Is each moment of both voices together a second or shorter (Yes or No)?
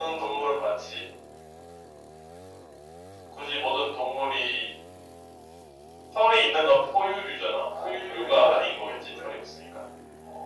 No